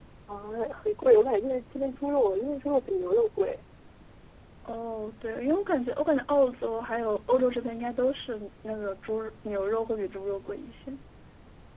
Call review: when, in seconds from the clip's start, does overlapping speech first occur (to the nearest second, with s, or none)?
none